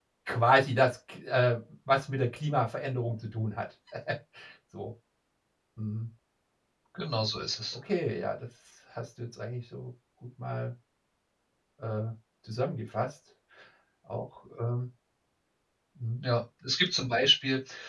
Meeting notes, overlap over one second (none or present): none